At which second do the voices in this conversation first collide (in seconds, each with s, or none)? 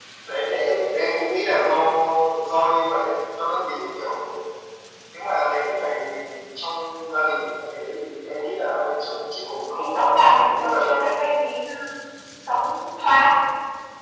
9.8 s